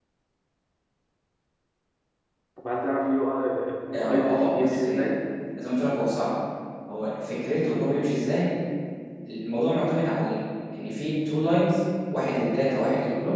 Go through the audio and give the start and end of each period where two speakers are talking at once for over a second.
3.9-5.1

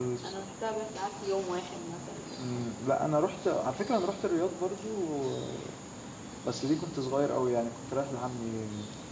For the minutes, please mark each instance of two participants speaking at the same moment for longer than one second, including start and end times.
none

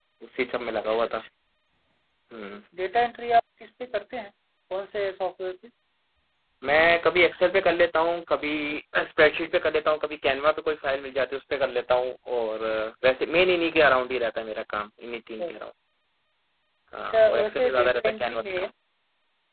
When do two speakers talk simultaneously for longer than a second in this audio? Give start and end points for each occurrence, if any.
17.1-18.7

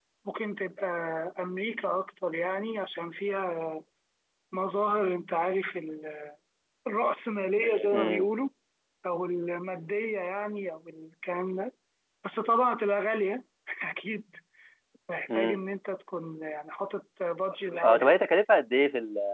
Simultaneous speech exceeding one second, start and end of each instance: none

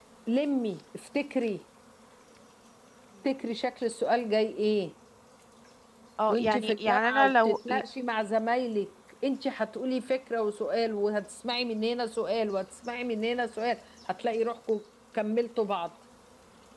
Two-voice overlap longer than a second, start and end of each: 6.3-7.6

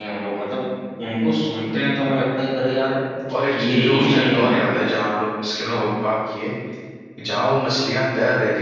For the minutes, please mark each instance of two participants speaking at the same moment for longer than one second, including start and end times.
3.5-4.8

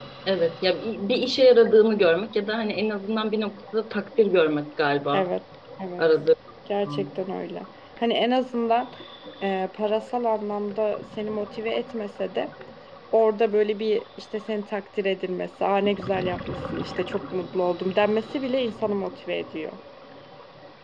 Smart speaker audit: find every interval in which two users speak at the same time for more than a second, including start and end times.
none

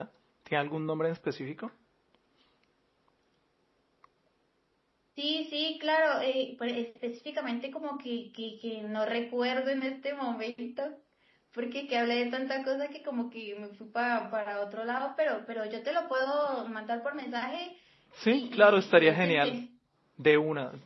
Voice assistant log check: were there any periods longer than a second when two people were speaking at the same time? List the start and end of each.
18.2-19.6

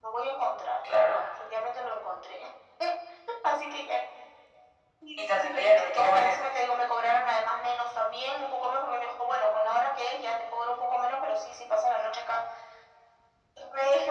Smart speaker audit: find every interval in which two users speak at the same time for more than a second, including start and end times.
5.2-6.5

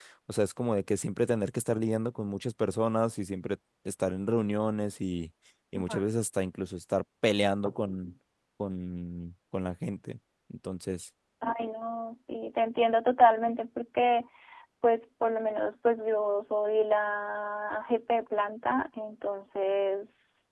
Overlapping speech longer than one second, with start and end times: none

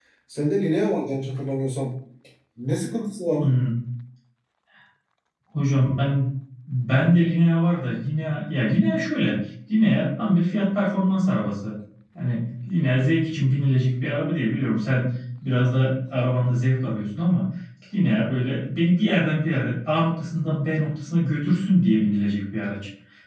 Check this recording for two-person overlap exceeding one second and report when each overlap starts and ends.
none

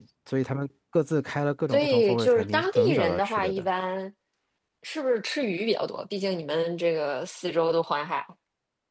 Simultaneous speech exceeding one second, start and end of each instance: 1.7-3.7

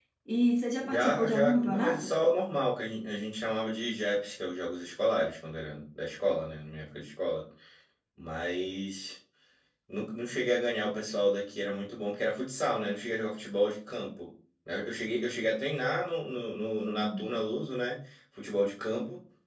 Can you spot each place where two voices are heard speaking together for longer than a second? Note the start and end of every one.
0.8-2.1

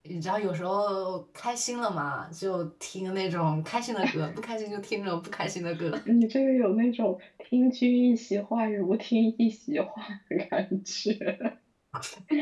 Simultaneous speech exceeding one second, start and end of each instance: none

